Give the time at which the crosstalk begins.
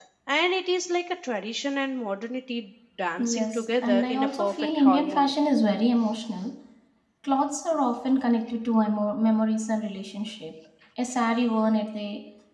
3.2 s

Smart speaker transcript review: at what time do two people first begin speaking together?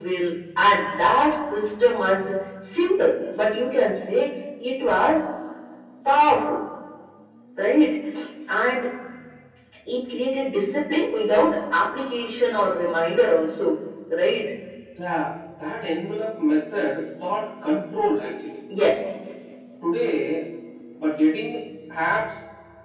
none

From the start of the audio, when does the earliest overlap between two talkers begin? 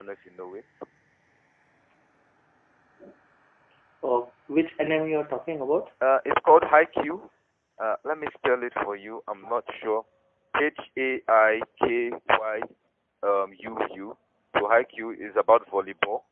none

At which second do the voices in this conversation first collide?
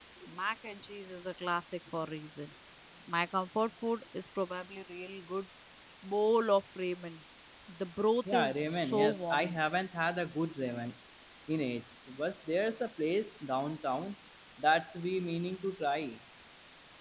8.3 s

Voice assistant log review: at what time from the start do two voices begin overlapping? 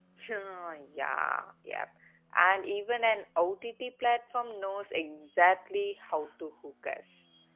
none

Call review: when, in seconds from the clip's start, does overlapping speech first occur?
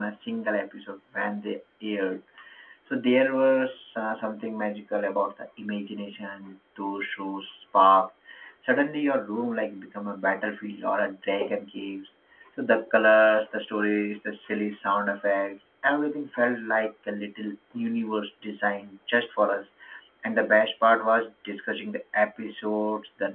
none

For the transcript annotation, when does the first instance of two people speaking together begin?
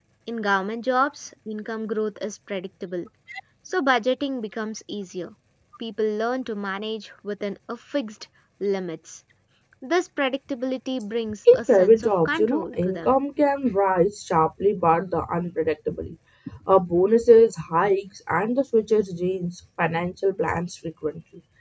11.5 s

